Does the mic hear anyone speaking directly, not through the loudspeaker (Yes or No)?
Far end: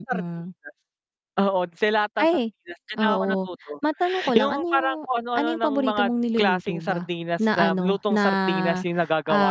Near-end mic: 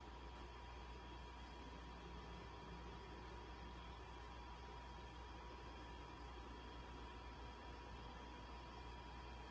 No